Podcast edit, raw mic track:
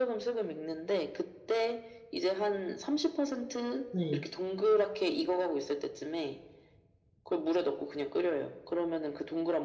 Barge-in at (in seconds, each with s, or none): 3.9 s